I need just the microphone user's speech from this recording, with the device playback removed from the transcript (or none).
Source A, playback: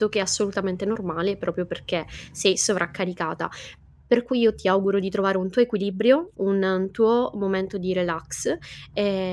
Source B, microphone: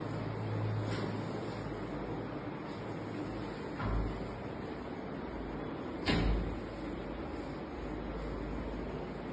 none